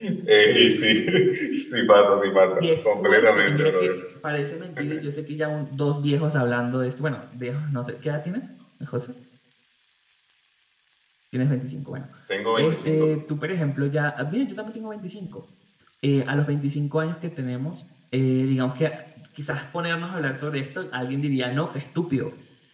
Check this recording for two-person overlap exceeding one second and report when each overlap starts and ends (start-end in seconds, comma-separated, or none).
2.6-3.9